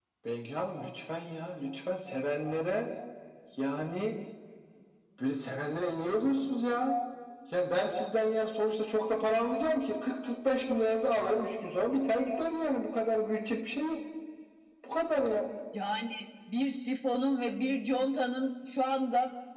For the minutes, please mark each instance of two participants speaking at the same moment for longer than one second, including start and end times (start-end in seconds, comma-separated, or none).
none